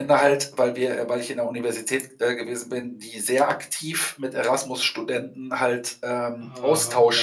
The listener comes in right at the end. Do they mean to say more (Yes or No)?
No